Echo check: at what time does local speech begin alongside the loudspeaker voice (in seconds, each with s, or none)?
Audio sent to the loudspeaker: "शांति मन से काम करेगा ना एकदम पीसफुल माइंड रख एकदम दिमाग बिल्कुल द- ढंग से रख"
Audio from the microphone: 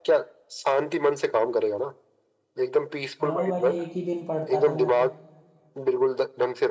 3.2 s